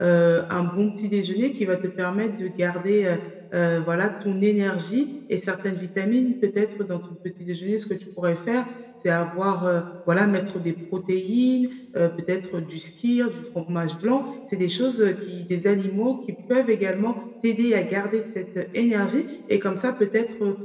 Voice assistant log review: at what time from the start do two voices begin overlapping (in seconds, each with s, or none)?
none